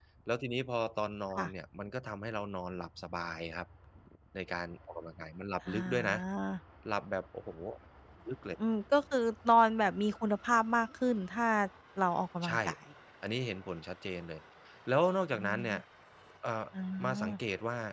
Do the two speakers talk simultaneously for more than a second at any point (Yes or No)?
No